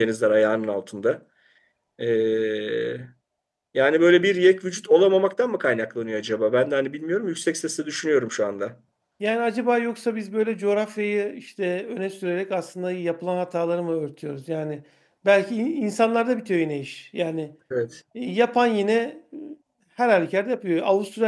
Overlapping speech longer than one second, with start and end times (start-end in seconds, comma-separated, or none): none